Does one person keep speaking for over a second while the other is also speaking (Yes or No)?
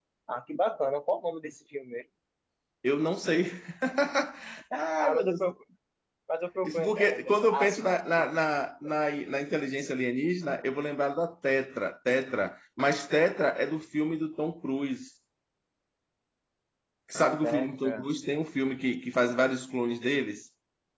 Yes